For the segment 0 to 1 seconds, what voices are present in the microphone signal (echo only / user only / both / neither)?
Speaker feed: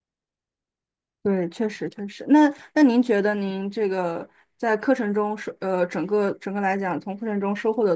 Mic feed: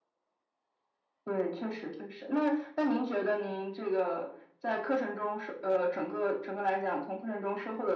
neither